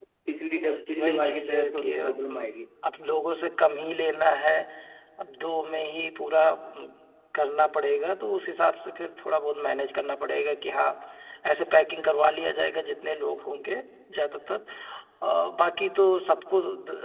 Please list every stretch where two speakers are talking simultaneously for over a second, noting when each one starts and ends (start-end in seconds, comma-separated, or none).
1.0-2.5